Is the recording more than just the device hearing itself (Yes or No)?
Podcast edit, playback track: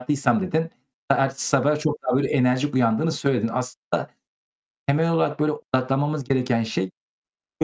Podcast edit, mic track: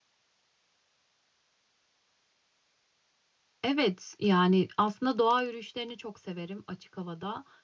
Yes